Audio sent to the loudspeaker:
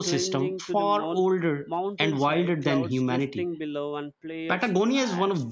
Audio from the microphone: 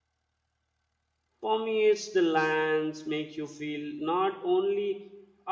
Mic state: user only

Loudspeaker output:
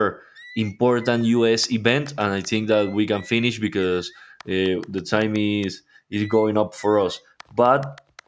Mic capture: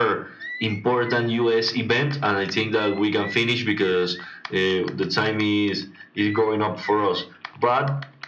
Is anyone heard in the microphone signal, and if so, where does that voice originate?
echo only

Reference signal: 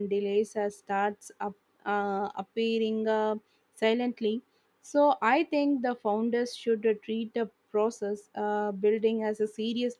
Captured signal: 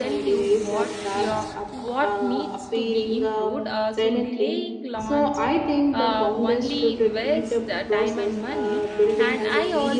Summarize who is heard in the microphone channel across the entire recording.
both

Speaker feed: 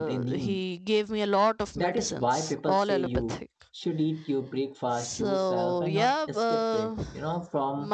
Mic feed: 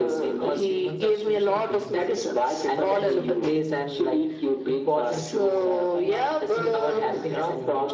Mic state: both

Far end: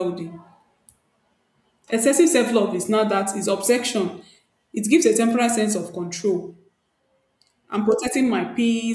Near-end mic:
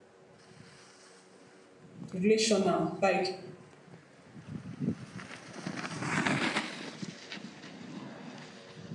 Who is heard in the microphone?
user only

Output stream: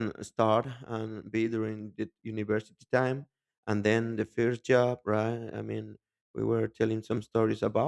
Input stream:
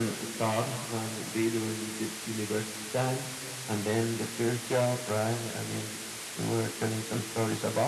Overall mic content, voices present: echo only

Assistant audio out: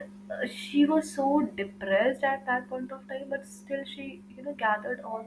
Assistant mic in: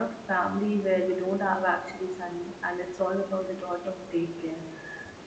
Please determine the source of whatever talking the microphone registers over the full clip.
user only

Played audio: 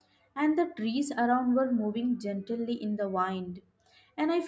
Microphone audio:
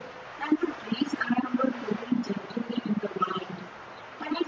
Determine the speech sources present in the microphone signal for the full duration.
echo only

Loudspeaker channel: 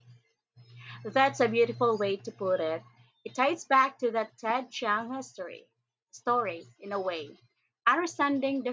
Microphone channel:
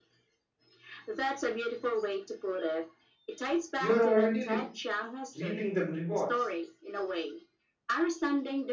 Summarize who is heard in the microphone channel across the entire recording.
both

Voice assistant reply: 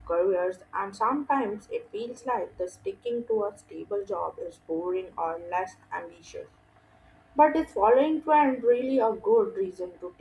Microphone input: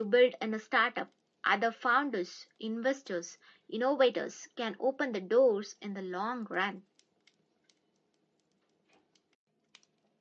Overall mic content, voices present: user only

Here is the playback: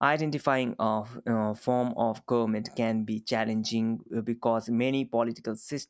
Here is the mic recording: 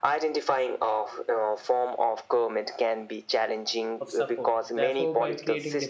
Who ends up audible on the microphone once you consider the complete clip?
both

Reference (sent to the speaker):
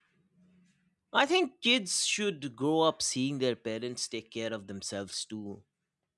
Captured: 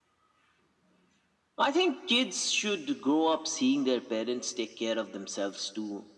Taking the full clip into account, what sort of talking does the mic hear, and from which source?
echo only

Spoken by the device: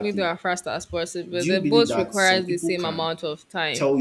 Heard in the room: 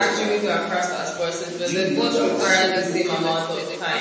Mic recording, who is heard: both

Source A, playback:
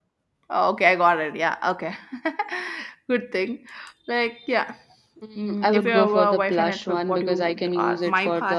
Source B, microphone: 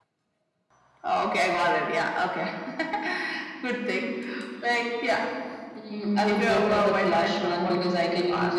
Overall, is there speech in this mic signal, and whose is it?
echo only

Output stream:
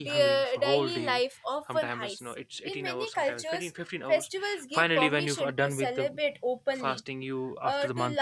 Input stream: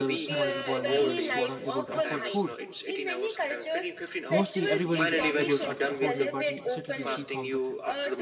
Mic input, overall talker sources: both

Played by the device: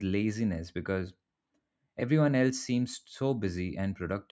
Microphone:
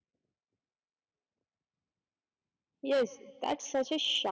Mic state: user only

